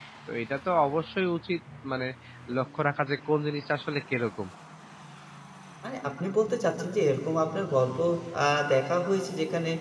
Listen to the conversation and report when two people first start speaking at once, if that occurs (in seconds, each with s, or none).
none